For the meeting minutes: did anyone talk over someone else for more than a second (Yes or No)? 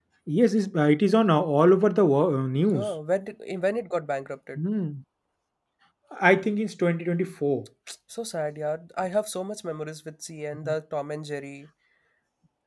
No